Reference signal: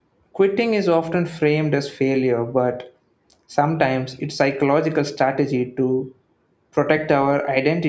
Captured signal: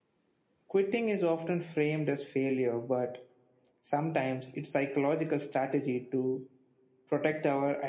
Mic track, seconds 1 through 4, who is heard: echo only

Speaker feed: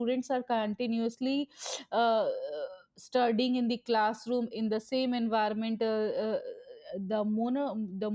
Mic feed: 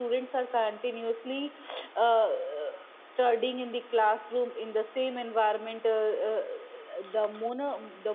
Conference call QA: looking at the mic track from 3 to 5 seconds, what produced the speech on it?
echo only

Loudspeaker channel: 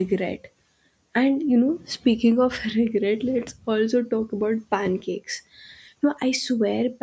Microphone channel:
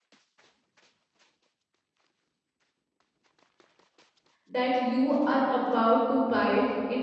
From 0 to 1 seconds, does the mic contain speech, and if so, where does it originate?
neither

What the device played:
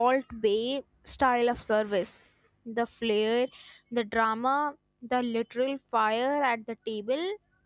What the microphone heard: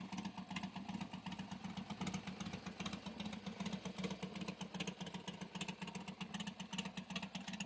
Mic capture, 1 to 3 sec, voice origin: neither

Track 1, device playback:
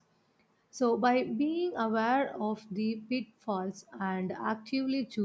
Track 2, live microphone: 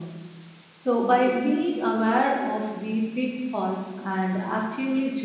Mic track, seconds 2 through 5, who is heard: echo only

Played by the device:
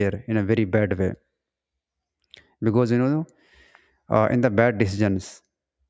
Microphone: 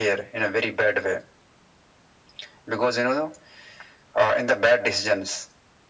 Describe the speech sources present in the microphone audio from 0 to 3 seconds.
echo only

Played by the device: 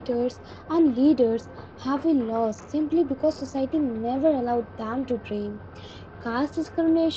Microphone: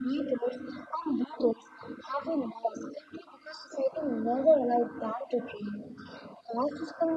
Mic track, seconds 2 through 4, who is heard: echo only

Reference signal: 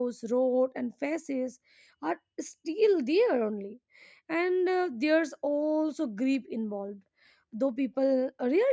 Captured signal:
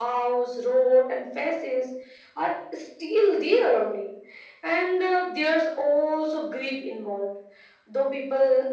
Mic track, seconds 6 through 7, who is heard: echo only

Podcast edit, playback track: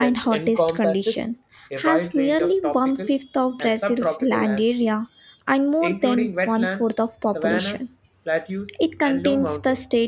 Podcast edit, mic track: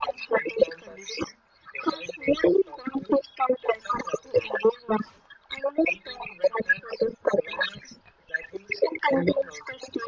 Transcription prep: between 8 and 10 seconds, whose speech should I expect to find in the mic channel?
echo only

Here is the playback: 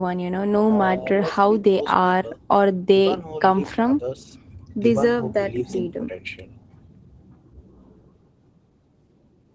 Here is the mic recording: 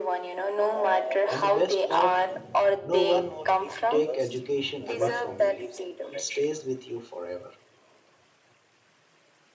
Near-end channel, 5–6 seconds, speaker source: both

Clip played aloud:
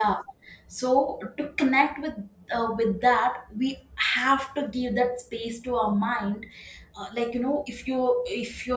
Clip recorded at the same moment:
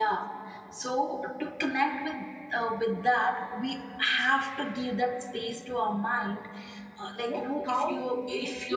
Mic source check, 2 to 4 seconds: echo only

